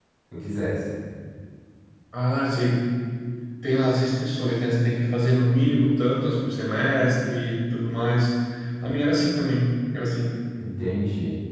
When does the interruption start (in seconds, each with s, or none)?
none